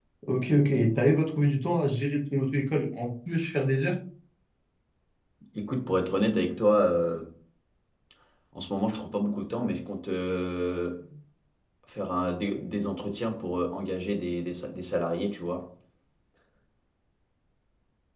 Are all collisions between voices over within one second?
Yes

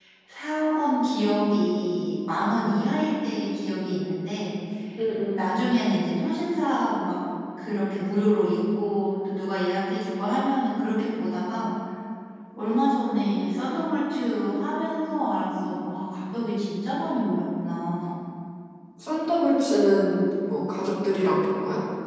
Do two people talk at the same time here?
No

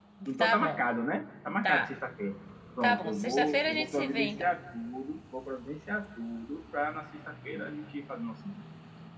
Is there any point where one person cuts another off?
Yes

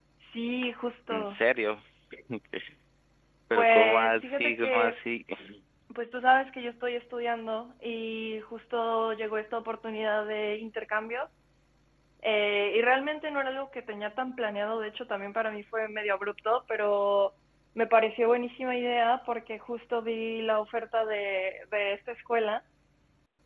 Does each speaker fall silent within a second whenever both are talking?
No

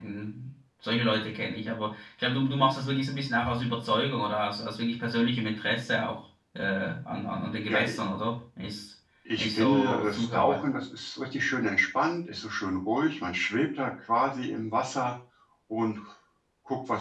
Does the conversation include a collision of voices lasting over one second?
Yes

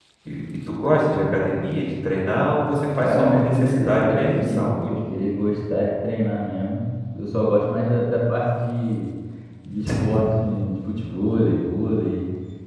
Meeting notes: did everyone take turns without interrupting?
No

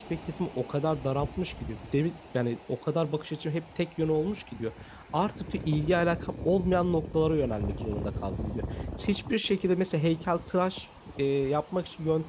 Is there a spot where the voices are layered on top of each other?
No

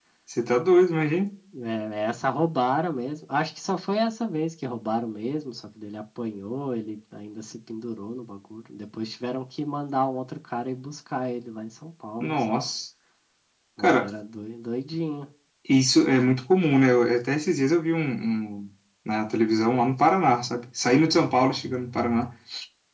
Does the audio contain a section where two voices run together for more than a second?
No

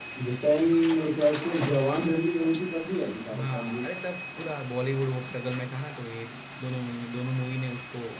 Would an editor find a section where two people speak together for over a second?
No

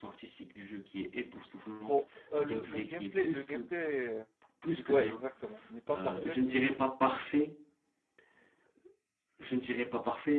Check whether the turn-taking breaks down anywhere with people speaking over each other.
Yes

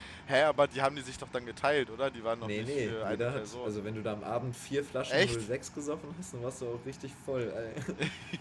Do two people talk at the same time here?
Yes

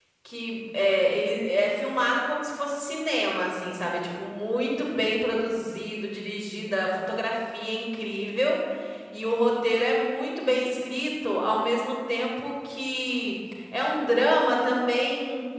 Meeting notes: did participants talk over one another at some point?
No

